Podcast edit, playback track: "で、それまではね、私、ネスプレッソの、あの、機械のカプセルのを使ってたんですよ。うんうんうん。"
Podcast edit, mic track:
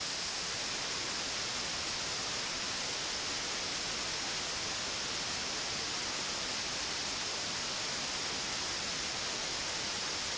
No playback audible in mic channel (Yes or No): Yes